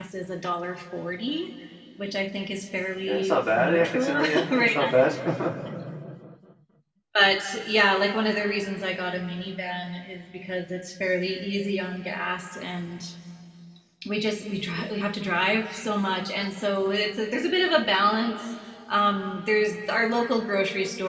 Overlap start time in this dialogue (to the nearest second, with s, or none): 3 s